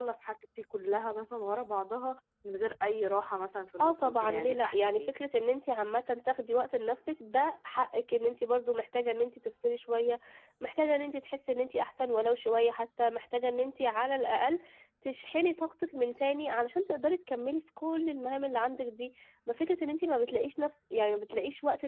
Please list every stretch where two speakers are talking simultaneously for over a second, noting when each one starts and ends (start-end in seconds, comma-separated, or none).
3.8-5.1